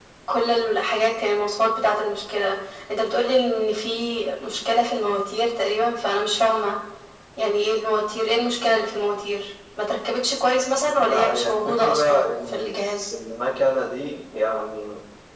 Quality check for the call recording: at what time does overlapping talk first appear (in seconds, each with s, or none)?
10.8 s